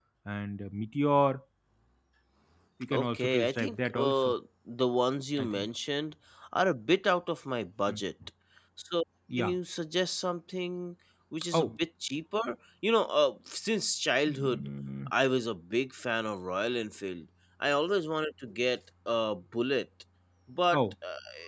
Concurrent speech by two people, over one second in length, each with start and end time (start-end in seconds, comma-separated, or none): 2.9-4.3